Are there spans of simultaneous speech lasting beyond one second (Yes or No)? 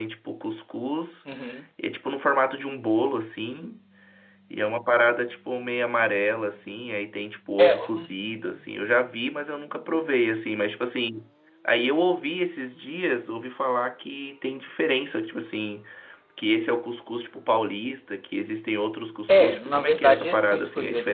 Yes